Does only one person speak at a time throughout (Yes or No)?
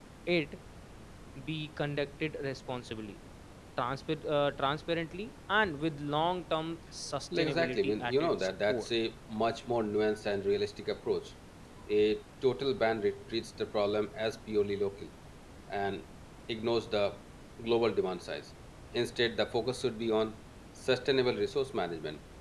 No